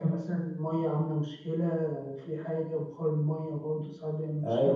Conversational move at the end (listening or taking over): taking over